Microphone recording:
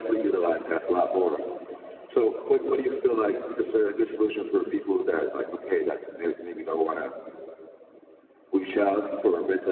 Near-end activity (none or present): none